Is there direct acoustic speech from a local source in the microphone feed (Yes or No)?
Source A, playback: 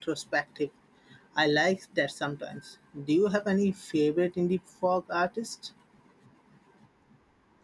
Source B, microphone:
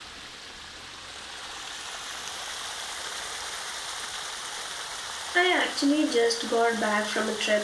Yes